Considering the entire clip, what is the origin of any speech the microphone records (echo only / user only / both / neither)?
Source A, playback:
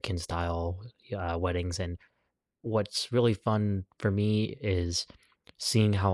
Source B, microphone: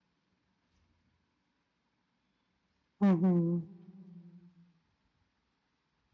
user only